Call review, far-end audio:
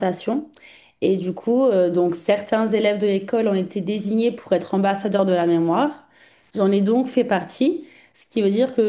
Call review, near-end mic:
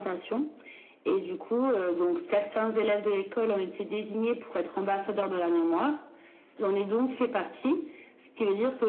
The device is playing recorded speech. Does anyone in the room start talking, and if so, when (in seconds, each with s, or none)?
none